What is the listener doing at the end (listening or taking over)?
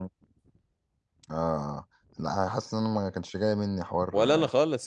taking over